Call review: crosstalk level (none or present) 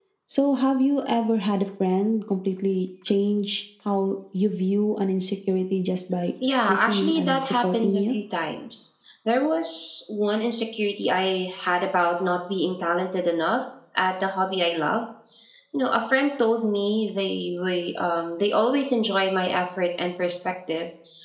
present